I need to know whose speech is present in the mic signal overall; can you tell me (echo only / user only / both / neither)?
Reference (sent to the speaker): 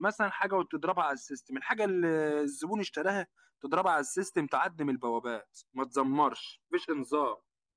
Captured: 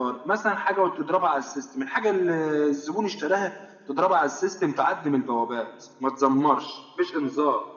echo only